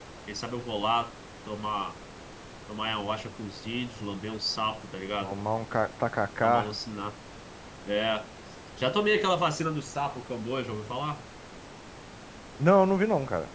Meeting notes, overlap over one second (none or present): none